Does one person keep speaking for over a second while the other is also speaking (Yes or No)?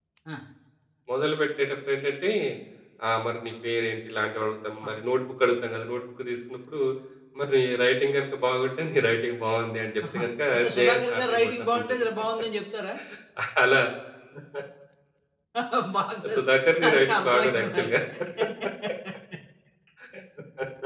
Yes